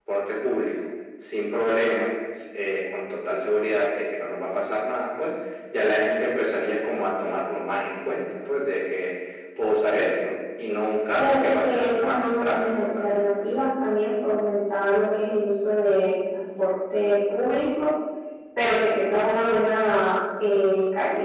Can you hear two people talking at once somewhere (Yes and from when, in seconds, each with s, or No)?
Yes, from 11.2 s